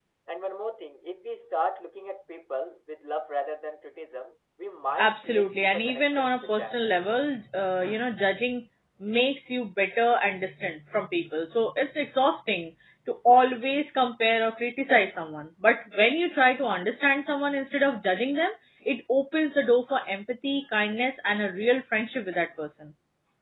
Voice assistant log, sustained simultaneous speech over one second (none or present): present